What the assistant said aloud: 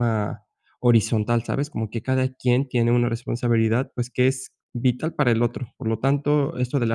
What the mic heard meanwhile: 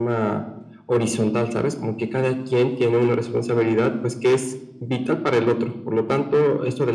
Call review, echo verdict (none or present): present